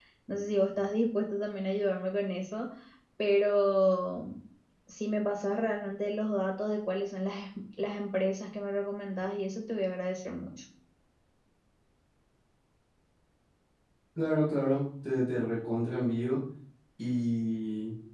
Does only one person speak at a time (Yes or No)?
Yes